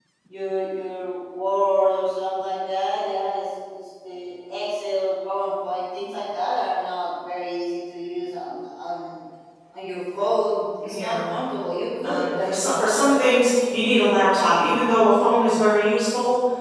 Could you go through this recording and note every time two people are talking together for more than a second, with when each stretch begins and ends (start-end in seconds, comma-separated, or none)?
12.0-13.3